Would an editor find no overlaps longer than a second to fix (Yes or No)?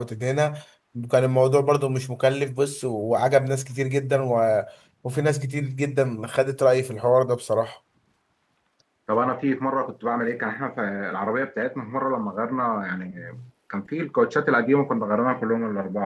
Yes